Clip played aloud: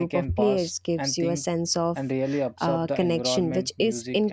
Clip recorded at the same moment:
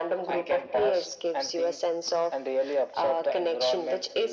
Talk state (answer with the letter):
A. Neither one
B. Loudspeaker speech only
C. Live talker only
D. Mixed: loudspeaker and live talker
B